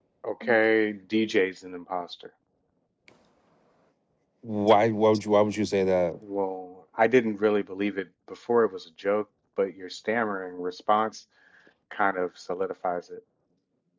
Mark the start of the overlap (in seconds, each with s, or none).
none